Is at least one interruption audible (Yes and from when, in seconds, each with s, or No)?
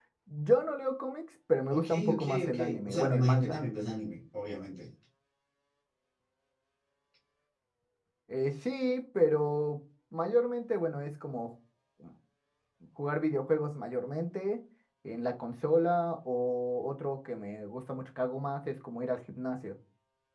Yes, from 1.7 s